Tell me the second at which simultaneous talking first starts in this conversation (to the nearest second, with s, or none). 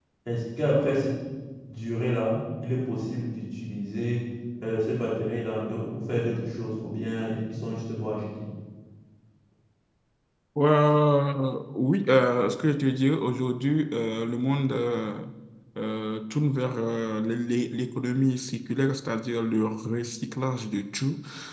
none